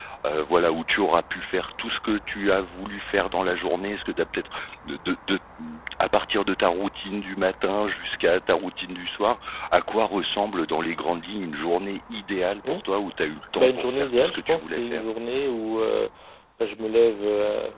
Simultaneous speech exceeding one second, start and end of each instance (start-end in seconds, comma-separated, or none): 13.6-15.0